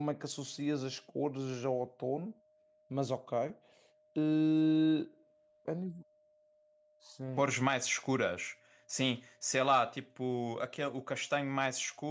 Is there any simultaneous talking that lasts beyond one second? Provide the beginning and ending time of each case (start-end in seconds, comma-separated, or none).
none